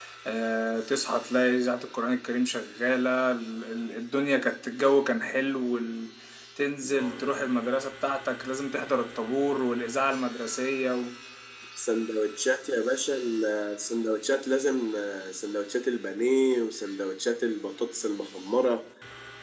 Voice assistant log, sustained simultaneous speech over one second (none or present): none